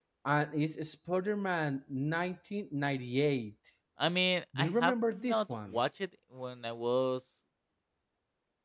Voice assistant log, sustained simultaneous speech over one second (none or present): present